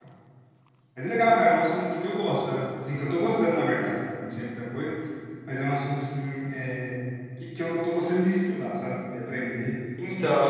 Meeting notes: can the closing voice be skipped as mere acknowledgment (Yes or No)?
No